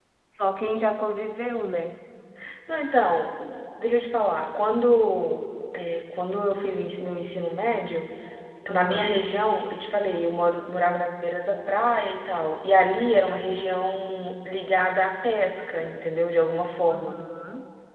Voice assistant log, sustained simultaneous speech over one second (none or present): none